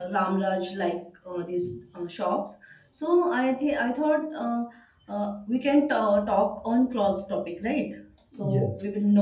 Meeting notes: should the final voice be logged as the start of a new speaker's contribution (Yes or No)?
No